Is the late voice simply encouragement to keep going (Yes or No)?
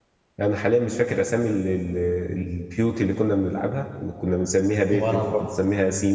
Yes